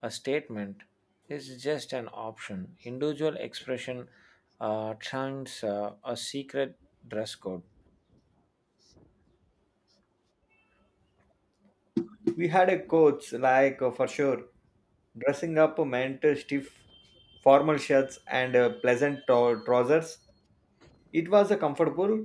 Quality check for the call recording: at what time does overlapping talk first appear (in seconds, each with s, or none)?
none